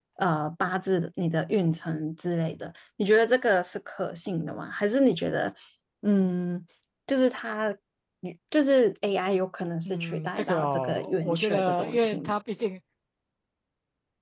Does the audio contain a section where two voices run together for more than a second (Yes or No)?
Yes